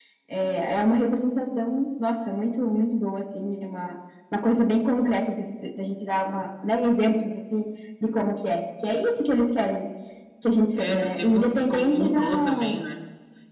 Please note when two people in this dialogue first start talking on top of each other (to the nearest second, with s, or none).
11 s